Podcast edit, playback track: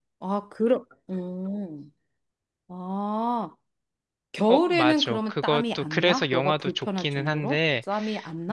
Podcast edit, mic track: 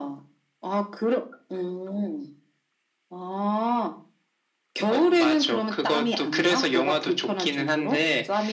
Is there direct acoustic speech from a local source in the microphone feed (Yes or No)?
No